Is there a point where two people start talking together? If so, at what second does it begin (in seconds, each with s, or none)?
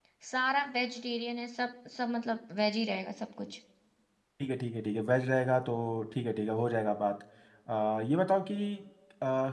none